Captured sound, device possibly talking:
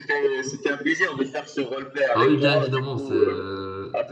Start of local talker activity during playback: 2.1 s

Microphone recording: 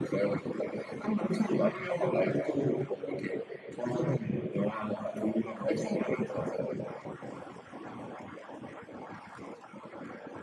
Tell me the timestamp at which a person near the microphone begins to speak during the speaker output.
none

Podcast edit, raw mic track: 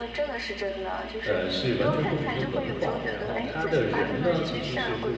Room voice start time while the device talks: 1.2 s

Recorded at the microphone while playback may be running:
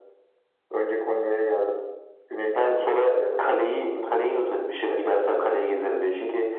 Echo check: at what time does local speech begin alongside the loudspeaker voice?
none

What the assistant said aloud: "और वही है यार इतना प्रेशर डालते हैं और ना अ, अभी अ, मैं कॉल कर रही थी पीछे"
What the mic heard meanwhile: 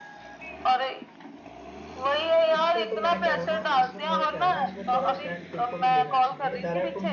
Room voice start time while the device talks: 2.6 s

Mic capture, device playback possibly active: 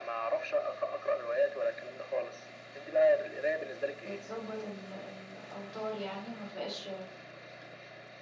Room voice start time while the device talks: 4.0 s

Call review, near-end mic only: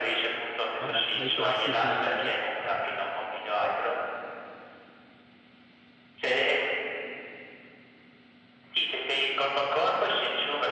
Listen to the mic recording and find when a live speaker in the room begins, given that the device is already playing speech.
0.8 s

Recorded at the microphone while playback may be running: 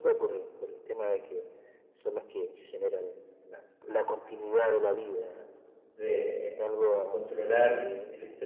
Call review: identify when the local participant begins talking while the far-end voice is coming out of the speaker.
5.9 s

